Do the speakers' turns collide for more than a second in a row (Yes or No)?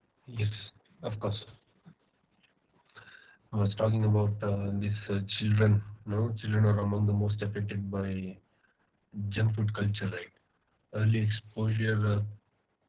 No